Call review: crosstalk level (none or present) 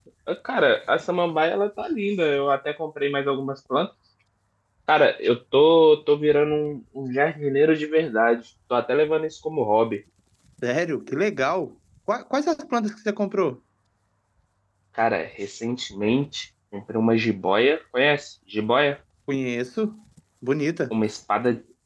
none